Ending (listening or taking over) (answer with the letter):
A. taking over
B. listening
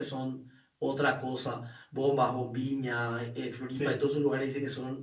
B